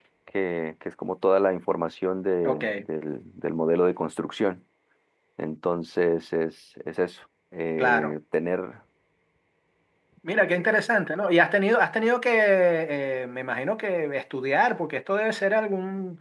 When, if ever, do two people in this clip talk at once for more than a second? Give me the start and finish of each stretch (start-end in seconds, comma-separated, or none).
none